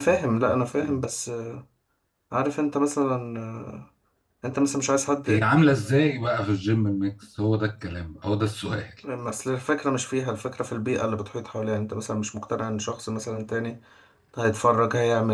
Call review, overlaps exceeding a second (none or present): none